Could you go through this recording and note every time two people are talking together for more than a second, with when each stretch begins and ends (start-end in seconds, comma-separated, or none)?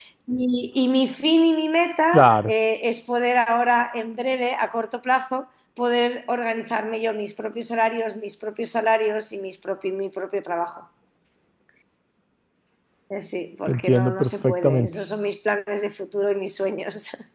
13.7-14.9